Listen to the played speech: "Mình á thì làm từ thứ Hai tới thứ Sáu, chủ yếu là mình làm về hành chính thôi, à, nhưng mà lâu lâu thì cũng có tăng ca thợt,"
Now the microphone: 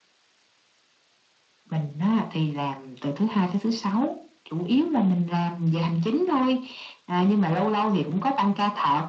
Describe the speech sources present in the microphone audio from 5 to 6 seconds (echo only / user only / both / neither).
echo only